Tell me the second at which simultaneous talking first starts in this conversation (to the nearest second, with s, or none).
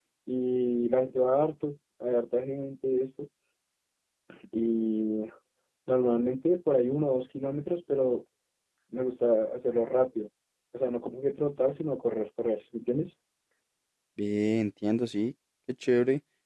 none